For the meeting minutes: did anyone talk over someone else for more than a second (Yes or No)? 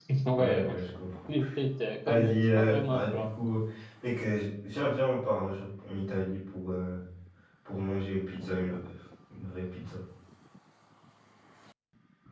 Yes